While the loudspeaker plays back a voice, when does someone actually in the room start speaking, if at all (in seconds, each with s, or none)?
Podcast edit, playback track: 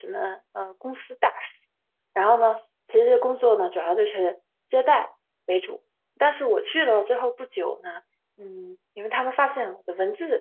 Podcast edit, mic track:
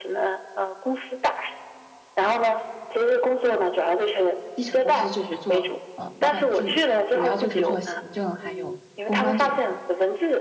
4.5 s